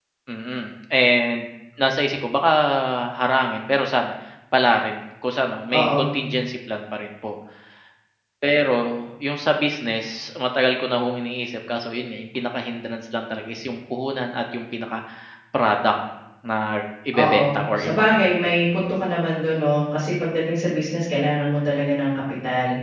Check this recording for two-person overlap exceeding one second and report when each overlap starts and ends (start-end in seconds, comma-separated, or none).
17.1-18.5